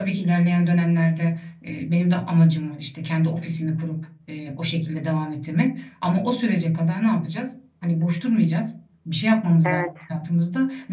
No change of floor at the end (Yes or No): Yes